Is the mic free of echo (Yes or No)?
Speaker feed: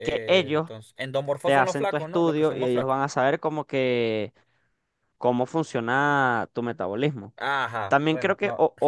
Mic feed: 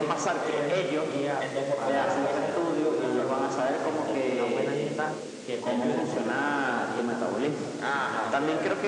No